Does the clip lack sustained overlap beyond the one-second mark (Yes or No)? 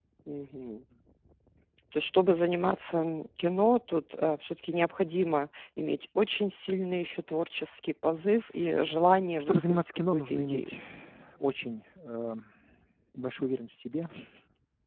No